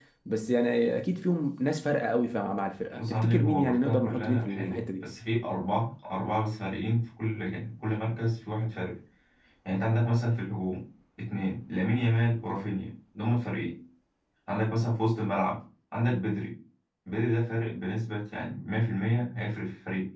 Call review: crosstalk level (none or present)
present